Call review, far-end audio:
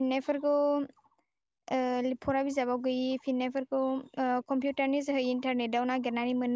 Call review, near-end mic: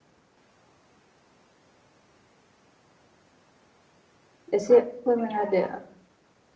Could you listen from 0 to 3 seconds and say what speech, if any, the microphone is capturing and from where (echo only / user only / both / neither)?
neither